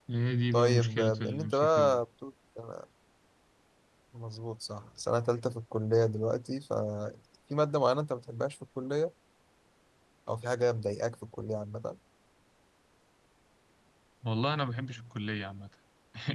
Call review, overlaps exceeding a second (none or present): present